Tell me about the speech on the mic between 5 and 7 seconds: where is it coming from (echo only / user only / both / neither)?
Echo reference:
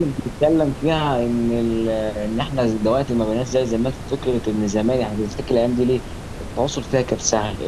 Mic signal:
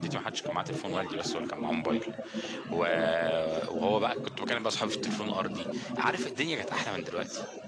both